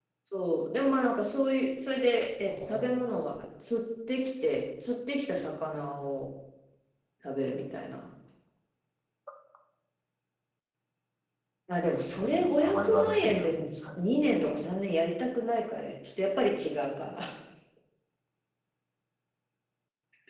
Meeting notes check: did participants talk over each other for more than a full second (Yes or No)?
Yes